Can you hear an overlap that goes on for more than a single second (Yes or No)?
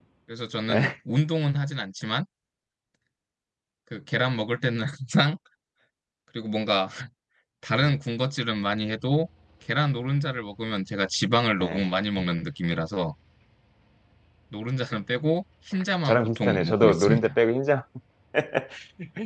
Yes